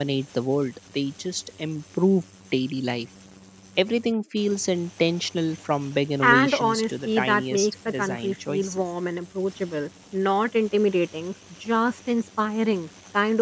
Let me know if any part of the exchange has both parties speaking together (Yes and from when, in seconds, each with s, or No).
Yes, from 6.2 s